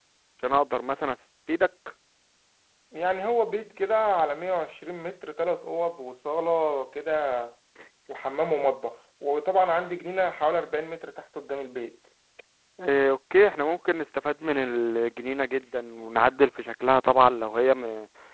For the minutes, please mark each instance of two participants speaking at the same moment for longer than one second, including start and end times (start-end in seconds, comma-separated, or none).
none